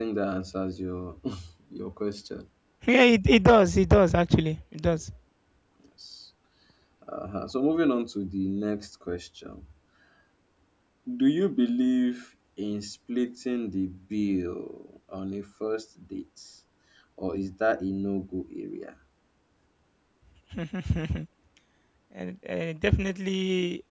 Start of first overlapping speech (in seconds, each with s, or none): none